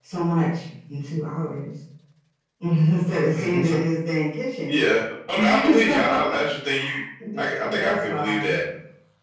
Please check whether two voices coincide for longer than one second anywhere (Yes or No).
Yes